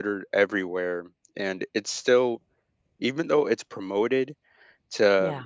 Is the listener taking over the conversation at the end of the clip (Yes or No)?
No